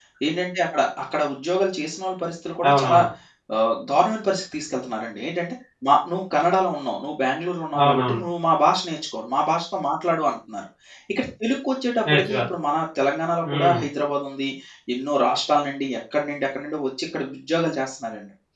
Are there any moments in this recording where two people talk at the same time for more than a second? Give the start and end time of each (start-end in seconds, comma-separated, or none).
none